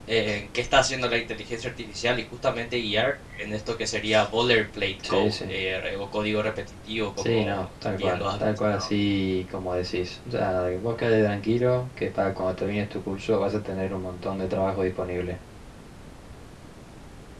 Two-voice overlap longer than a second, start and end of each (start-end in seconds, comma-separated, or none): none